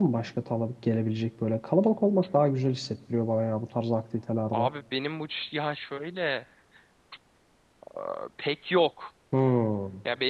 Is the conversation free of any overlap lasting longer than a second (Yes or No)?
Yes